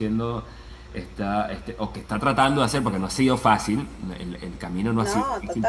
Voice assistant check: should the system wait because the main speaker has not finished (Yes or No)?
Yes